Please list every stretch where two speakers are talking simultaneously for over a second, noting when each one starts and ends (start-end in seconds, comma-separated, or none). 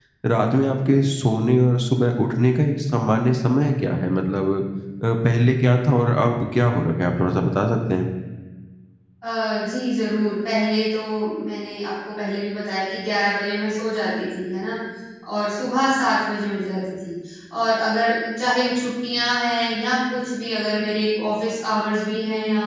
none